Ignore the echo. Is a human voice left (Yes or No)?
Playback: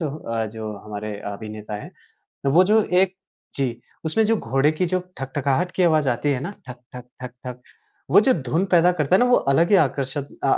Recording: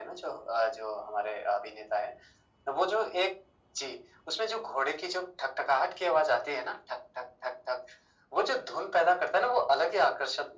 No